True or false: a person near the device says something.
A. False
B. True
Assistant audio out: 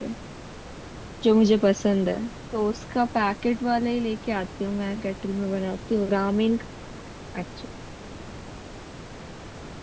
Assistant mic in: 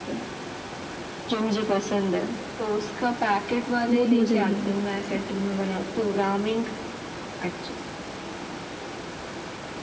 B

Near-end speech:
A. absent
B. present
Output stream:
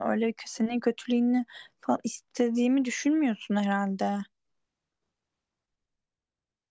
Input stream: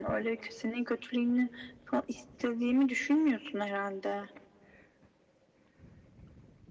A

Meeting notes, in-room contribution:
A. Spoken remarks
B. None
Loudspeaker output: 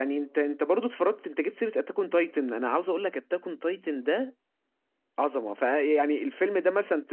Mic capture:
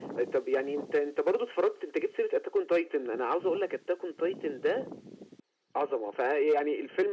B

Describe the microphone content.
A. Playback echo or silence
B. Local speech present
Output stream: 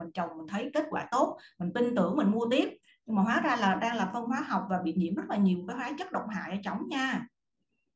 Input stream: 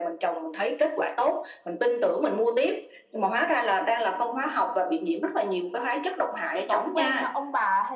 B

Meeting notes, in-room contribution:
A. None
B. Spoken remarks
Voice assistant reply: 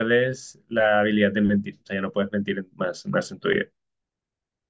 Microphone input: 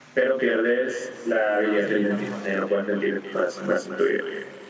B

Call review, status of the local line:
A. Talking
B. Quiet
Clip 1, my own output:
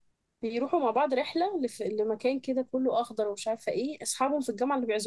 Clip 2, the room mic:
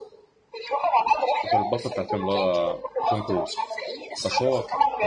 A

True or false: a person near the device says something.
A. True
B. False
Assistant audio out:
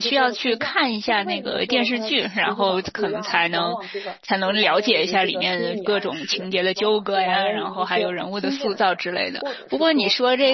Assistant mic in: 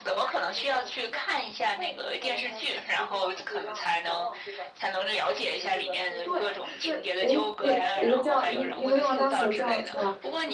A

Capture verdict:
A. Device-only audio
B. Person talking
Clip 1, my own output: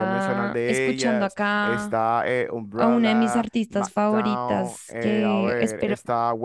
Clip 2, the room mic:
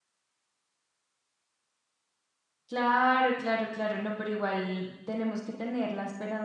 B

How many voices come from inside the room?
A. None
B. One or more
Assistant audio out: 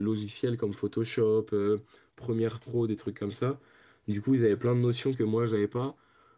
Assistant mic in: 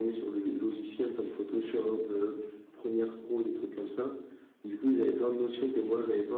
A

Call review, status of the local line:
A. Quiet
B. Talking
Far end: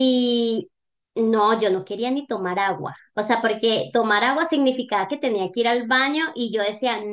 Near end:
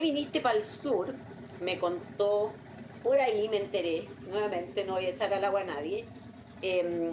B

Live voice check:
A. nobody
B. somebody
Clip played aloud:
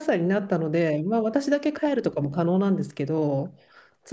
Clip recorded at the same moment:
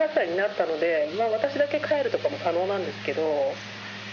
A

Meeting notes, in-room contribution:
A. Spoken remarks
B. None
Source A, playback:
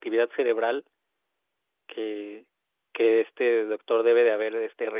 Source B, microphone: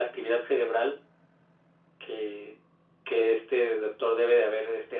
B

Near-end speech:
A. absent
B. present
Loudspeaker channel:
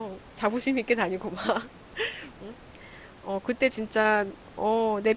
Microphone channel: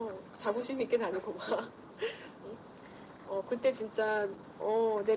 A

